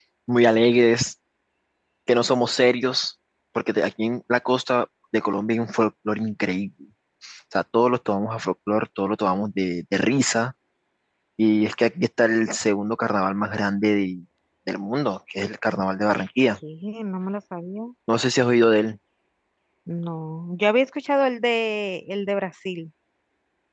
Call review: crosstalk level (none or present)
none